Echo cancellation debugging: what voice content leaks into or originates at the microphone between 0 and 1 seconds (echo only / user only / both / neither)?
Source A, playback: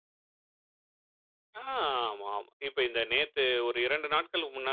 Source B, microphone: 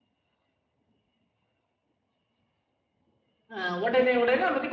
neither